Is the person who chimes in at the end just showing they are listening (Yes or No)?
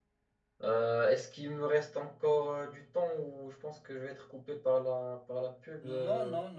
No